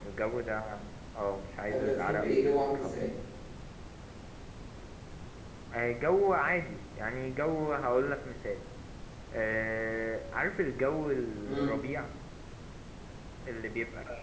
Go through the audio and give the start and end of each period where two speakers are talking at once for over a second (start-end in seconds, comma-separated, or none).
1.7-3.1